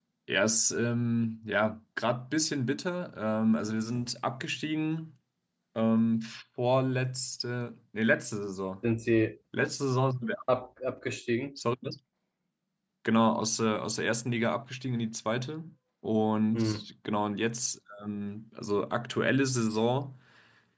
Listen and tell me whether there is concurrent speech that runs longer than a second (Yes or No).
No